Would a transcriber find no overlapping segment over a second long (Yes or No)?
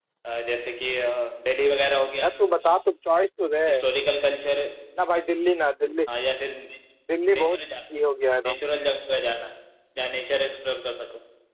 Yes